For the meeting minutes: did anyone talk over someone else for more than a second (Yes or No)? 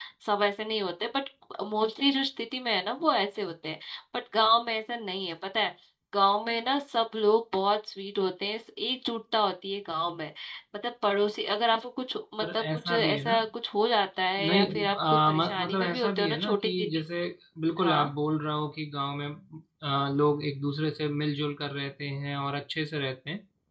Yes